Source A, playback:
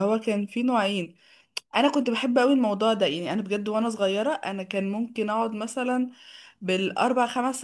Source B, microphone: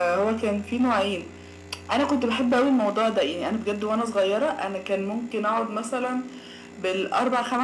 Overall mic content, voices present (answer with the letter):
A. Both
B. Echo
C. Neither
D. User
B